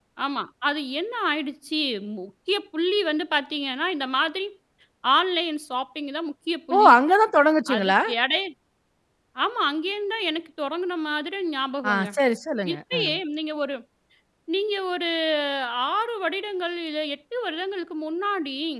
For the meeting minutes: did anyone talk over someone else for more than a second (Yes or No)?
No